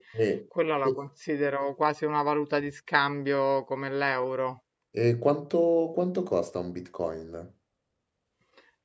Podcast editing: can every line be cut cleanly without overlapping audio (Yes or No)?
Yes